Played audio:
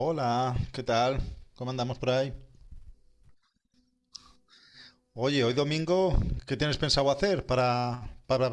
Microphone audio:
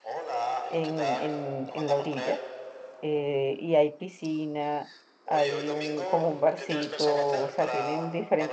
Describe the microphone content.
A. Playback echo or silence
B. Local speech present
B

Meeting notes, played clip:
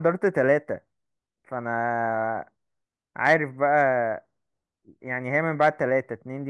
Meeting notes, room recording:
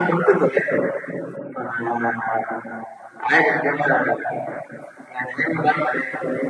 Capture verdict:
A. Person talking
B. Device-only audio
B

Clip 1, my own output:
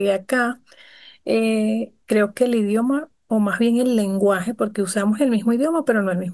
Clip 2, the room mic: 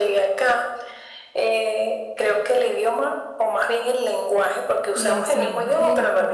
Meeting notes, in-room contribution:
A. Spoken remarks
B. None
A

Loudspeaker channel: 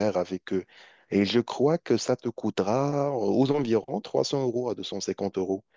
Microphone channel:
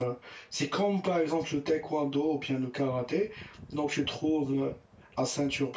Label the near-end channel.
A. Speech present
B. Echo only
A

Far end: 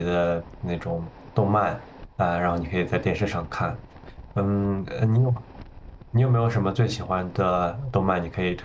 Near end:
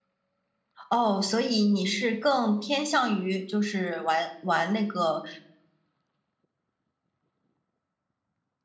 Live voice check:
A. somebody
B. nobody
A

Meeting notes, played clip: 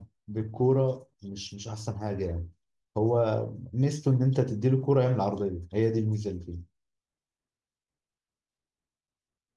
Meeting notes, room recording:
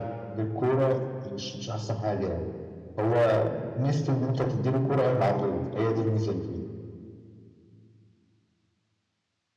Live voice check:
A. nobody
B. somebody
A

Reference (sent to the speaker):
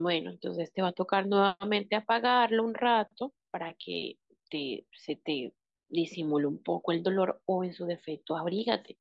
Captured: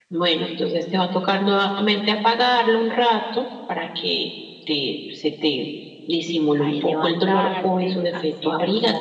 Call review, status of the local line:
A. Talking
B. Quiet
A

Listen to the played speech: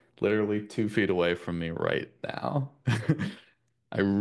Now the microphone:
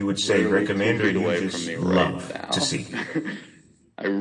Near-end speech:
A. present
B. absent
A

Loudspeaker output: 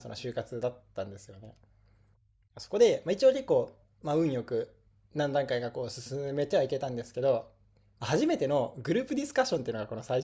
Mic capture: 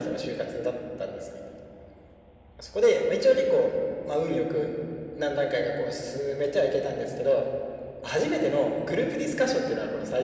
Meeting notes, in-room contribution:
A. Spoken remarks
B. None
B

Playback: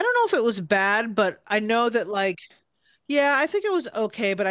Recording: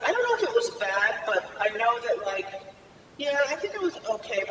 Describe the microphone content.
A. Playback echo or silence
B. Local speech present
A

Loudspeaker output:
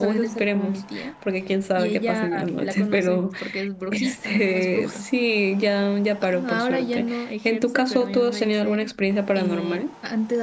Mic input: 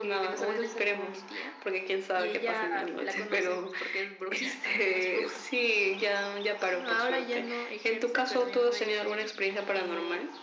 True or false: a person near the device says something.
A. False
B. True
A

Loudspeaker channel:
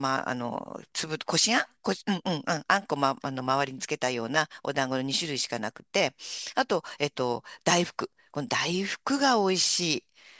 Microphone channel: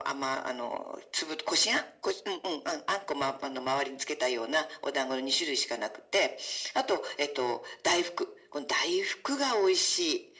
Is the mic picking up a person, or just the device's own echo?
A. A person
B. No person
B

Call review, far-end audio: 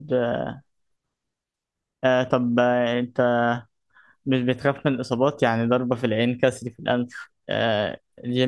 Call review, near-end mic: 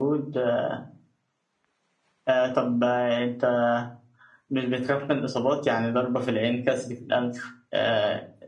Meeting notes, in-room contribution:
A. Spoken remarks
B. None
B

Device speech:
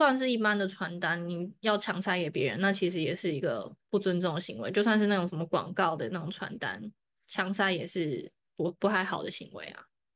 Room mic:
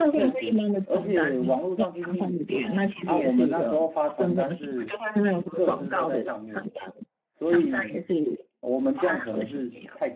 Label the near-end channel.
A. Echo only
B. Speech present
B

